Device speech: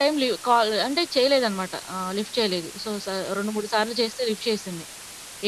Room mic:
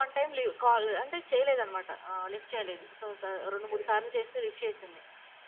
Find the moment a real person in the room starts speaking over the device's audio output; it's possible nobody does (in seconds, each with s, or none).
3.4 s